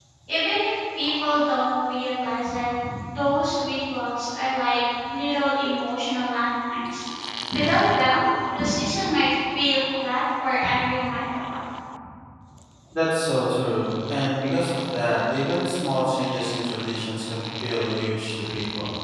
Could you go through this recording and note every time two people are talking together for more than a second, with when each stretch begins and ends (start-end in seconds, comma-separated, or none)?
none